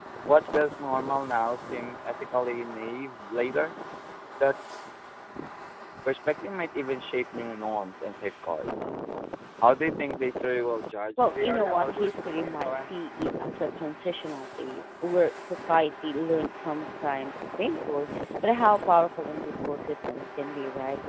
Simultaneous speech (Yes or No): Yes